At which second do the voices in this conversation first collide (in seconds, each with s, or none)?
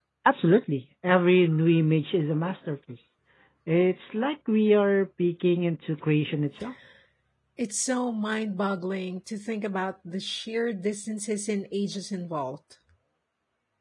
none